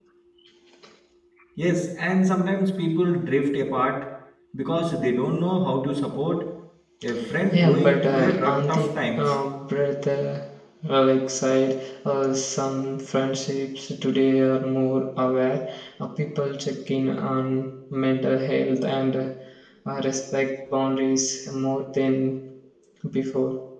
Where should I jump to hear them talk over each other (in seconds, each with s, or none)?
7.5 s